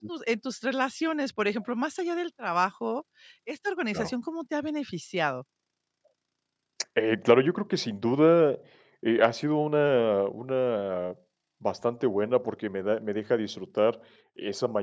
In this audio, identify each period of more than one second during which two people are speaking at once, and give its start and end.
none

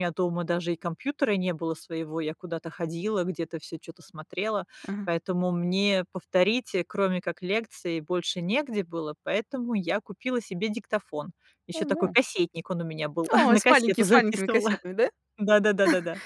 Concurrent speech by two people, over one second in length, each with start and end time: 13.3-14.8

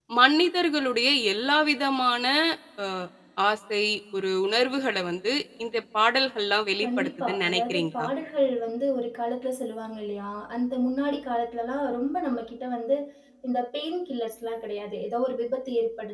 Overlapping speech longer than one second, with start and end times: 6.8-8.1

